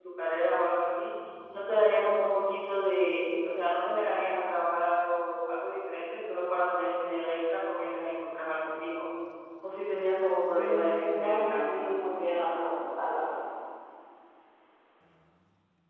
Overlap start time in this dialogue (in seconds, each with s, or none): 10.5 s